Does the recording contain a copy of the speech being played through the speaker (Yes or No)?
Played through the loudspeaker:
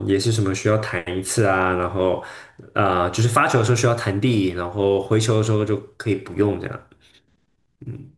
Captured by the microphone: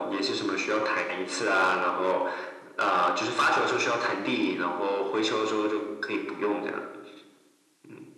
Yes